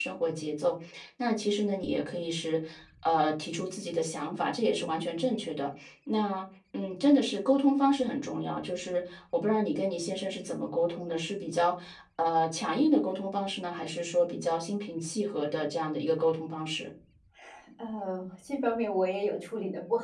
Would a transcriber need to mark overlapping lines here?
No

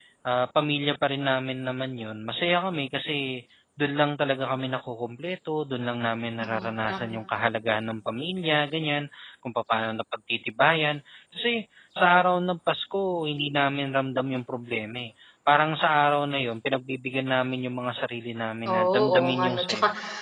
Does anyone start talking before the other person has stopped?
Yes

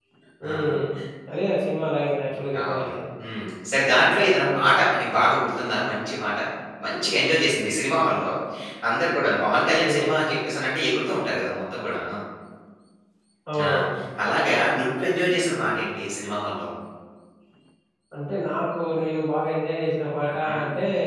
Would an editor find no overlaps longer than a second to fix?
Yes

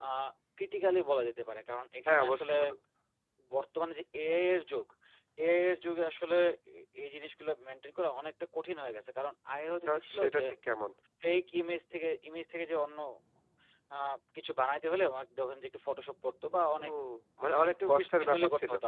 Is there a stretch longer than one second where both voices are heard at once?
Yes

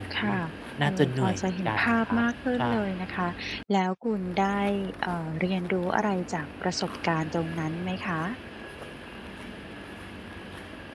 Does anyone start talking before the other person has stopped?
Yes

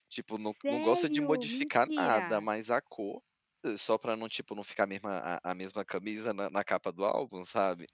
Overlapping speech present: Yes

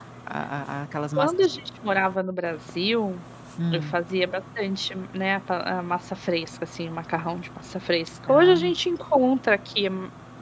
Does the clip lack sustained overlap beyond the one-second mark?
Yes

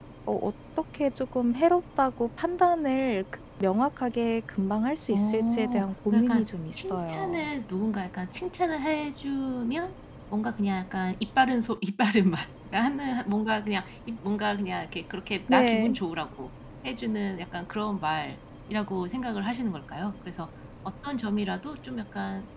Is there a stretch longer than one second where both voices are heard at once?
Yes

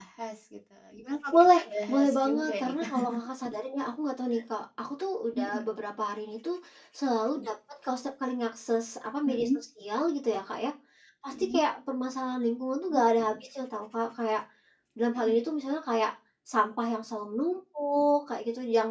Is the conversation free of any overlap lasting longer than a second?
No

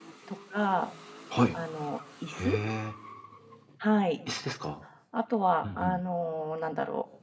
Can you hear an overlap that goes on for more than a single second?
No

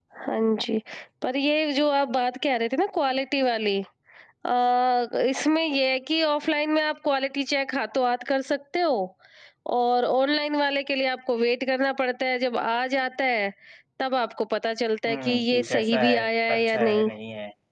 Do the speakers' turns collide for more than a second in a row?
Yes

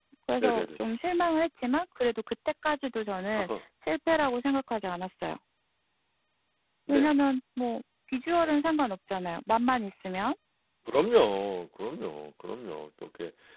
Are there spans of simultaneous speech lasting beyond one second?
No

